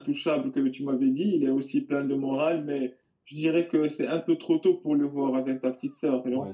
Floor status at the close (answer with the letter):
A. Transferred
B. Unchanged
A